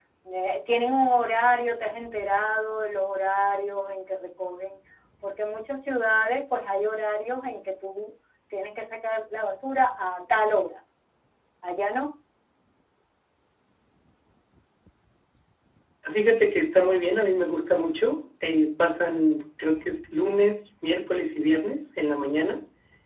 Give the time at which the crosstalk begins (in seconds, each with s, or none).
none